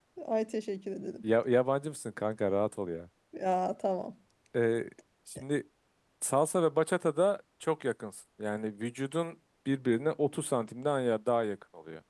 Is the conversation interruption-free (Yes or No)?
Yes